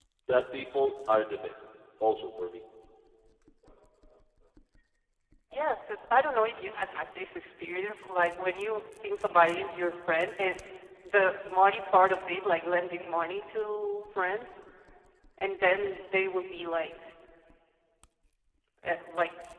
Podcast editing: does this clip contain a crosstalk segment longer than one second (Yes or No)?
No